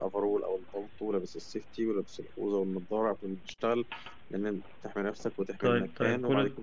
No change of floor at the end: No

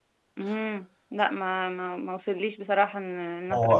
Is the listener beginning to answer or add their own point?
Yes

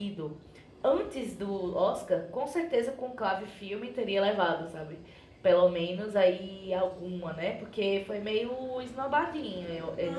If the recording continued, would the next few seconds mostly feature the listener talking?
Yes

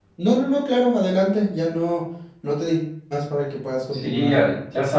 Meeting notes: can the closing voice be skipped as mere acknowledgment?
No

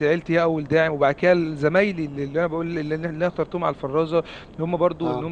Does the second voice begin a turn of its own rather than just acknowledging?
No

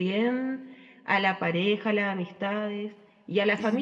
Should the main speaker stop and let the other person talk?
No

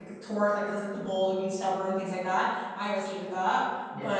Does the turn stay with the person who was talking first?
Yes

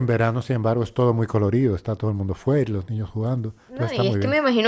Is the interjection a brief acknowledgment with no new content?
No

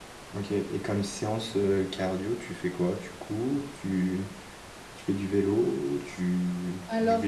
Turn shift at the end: Yes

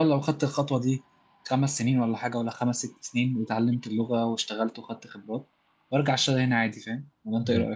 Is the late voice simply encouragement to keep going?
No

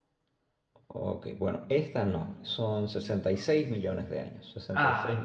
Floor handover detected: No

